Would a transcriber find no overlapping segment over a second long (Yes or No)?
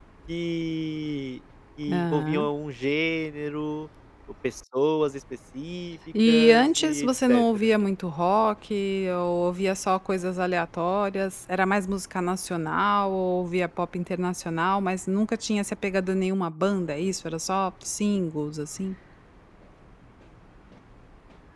No